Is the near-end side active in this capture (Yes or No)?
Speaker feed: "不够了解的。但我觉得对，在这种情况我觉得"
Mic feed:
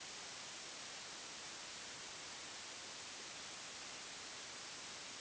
No